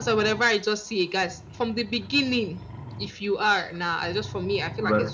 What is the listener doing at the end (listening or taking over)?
taking over